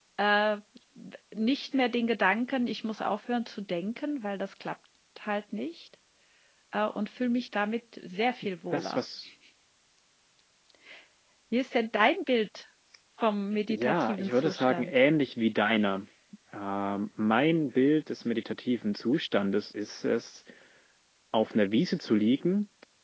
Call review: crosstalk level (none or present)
present